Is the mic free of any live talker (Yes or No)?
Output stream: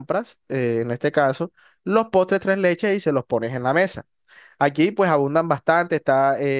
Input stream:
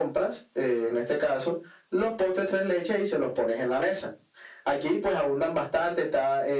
Yes